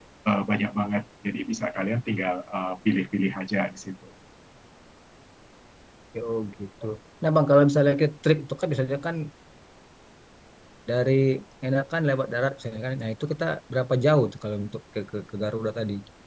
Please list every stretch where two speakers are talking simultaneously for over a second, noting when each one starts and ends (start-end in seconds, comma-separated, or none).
none